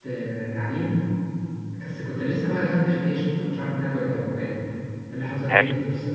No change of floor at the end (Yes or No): Yes